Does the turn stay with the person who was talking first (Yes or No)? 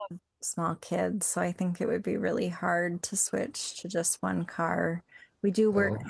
Yes